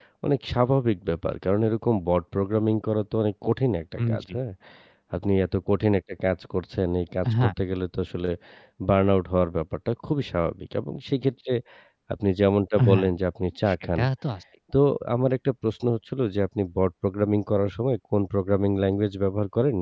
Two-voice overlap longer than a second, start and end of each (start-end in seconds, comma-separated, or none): none